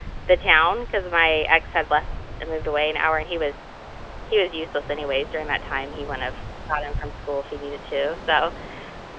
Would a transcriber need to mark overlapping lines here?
No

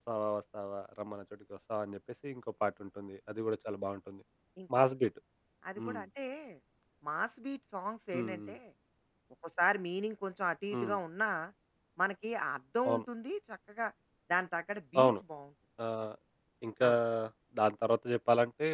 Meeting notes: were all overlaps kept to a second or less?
Yes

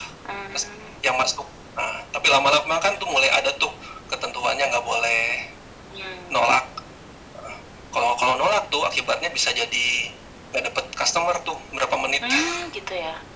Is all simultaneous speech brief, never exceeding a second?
Yes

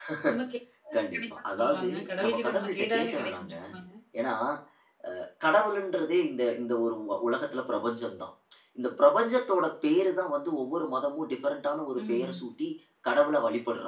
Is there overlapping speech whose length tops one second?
Yes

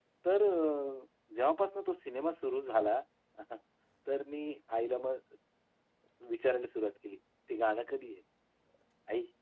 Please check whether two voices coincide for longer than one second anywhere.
No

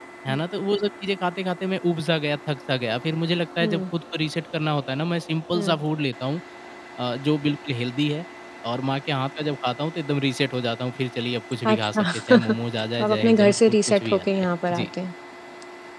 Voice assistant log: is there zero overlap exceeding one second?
No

